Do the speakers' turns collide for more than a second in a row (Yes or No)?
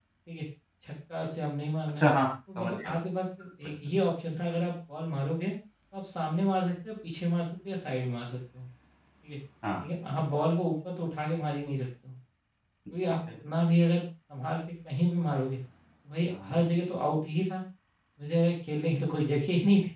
No